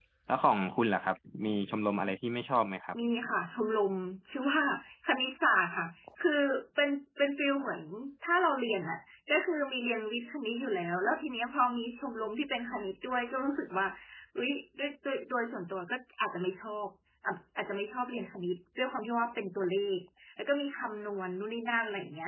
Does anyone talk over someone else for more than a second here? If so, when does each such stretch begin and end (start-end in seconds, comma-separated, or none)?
none